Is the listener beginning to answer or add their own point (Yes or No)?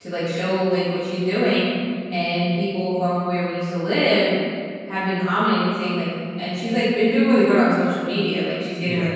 No